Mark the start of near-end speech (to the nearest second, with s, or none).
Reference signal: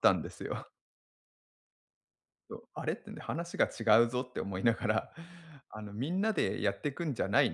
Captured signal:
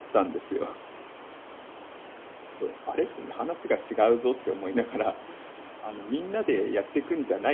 none